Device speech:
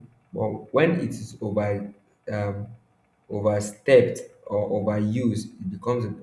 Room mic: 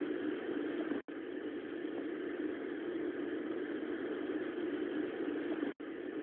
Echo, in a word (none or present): none